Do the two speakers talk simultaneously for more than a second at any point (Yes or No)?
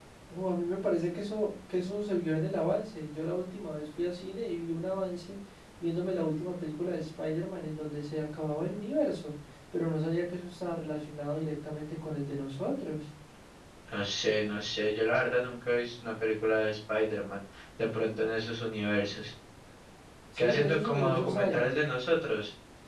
Yes